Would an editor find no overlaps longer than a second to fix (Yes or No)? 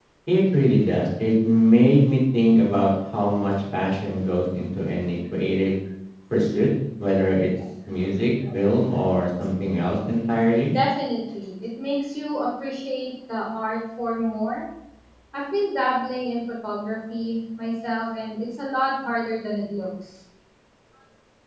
Yes